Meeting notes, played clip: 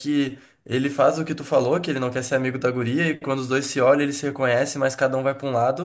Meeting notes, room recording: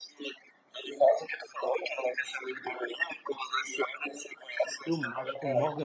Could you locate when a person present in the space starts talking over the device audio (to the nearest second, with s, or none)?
5 s